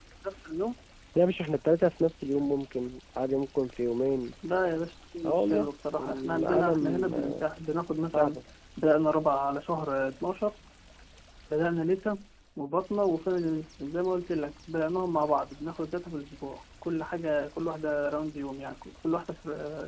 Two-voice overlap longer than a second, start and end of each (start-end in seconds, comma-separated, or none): 5.2-7.4